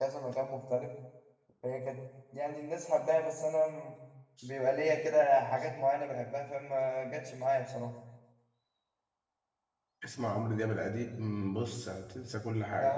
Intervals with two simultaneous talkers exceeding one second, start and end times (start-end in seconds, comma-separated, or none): none